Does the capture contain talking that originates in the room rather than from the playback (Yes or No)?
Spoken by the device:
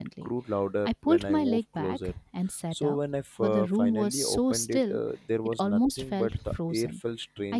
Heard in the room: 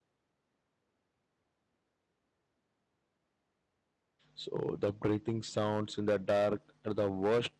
Yes